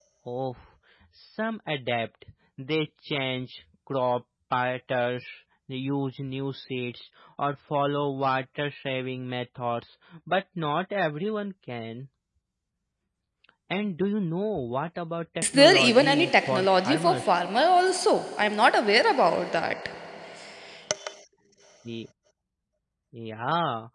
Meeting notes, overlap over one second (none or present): present